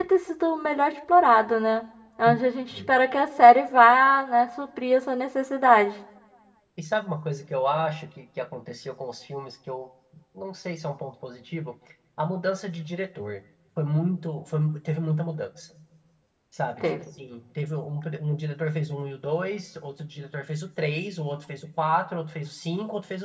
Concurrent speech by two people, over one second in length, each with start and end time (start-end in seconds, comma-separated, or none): none